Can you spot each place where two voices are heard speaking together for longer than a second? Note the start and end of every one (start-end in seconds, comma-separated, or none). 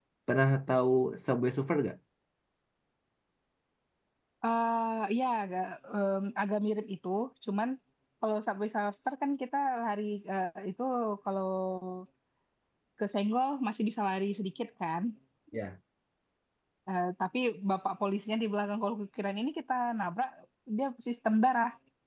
none